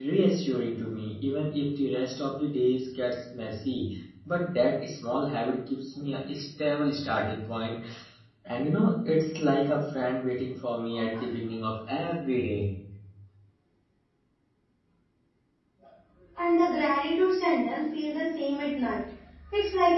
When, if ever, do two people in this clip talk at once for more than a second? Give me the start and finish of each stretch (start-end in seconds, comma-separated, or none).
none